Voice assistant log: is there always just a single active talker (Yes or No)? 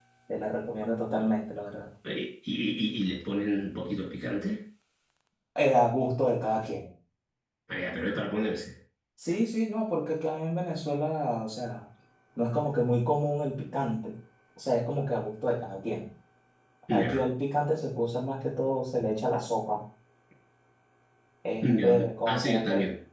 No